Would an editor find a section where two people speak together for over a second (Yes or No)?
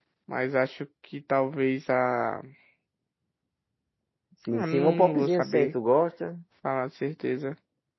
Yes